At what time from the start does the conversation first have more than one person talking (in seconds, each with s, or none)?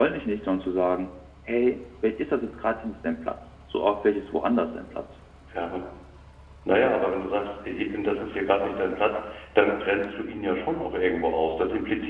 none